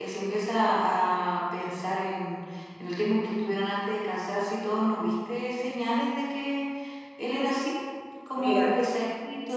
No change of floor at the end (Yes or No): Yes